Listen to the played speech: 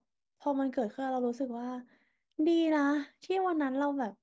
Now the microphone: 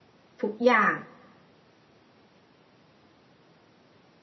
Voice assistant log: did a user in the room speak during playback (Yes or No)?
Yes